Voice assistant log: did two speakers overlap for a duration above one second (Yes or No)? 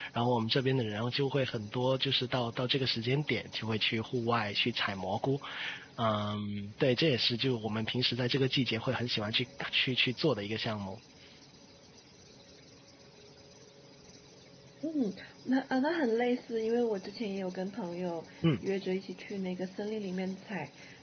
No